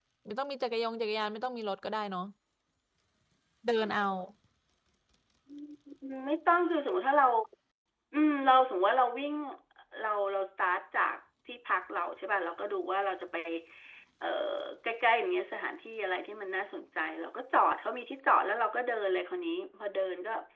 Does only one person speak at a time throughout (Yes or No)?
Yes